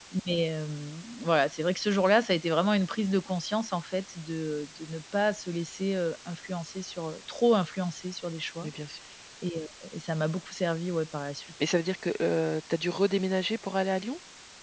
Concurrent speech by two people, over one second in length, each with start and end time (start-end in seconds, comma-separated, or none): none